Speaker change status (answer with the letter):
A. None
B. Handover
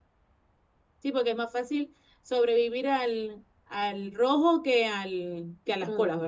B